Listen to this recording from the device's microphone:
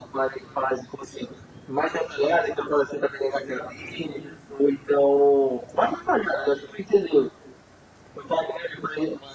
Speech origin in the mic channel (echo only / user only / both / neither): echo only